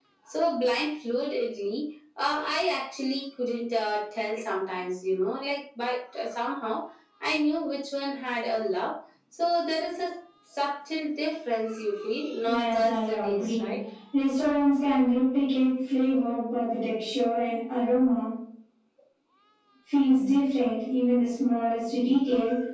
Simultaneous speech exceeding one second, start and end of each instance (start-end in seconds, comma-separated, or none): 12.4-13.7